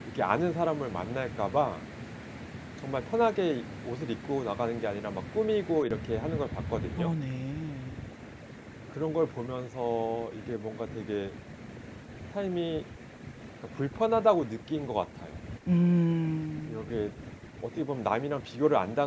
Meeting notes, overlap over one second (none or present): none